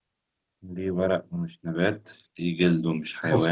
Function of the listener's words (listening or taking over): taking over